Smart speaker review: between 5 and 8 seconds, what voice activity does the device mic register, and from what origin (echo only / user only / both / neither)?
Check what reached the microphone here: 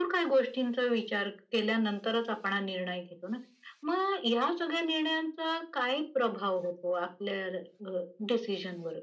echo only